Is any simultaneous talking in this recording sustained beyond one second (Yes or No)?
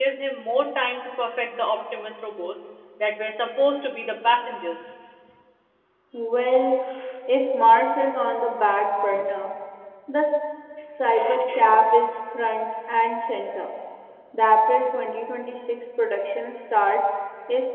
No